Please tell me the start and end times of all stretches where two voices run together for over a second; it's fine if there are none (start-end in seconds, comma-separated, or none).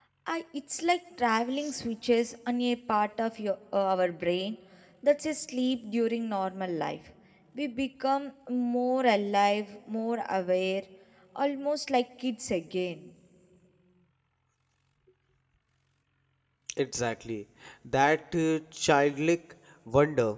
none